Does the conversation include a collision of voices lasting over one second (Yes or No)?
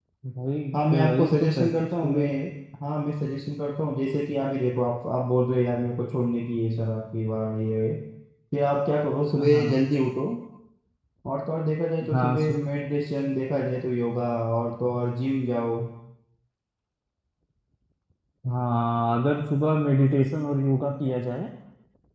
Yes